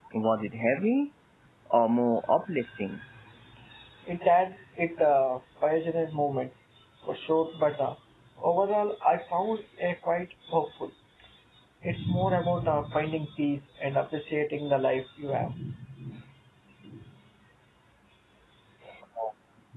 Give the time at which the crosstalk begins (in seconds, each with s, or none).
none